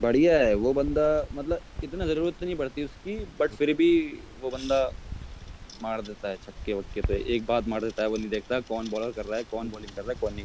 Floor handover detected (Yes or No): Yes